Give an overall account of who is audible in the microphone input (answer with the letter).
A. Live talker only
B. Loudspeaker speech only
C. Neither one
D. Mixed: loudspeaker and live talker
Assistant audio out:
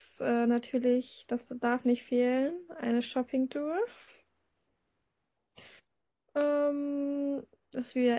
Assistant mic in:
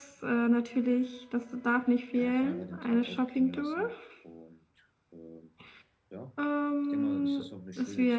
D